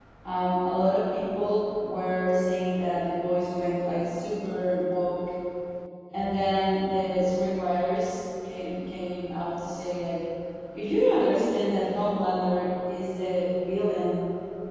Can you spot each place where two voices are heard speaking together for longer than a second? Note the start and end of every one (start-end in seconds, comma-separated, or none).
none